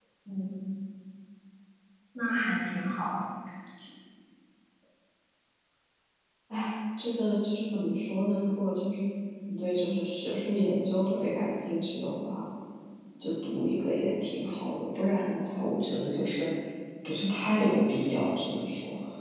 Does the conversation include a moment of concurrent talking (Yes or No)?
No